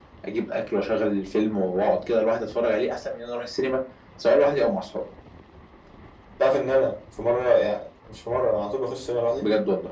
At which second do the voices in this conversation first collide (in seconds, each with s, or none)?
none